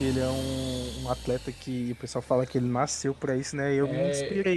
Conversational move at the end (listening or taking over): listening